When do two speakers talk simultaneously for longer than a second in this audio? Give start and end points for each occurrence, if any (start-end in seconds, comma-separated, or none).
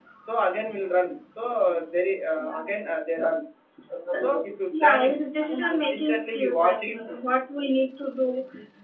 5.6-7.0